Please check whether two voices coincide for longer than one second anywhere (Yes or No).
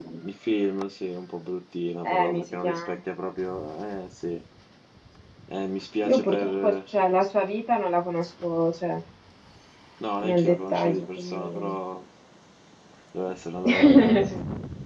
Yes